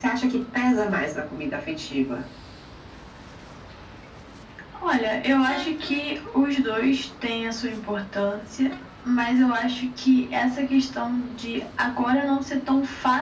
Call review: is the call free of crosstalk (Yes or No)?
Yes